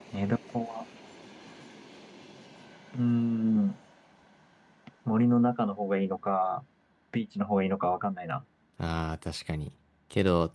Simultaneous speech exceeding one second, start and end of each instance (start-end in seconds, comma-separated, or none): none